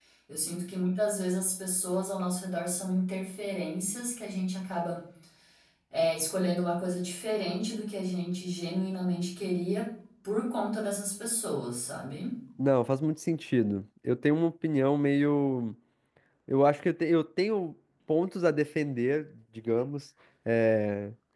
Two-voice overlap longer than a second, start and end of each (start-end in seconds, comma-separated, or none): none